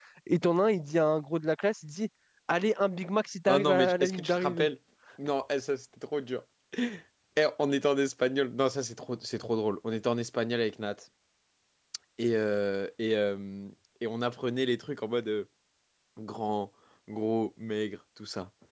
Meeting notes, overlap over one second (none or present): present